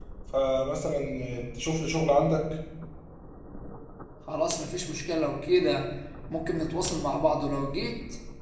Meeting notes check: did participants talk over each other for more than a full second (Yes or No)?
No